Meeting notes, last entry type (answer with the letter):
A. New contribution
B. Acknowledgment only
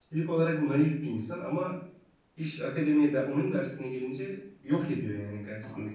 A